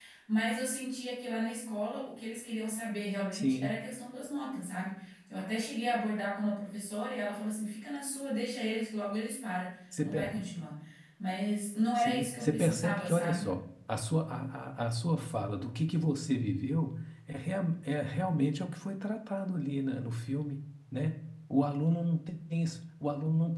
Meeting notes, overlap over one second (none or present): present